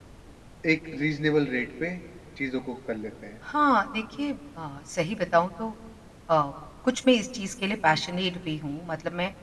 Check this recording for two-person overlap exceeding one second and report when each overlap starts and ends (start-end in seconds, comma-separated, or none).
none